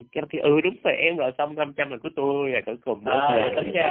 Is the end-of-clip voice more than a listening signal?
Yes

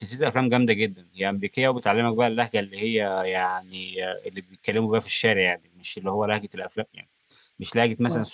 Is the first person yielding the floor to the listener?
No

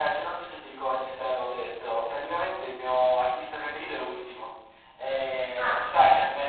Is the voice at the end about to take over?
No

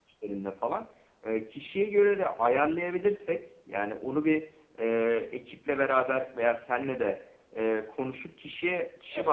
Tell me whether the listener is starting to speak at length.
No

